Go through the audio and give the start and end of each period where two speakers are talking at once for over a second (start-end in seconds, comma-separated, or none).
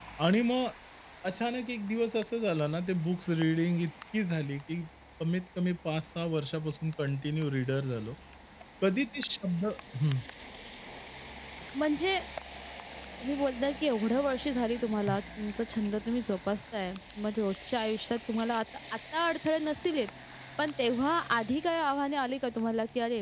none